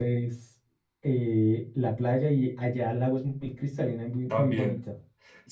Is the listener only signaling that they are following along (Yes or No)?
No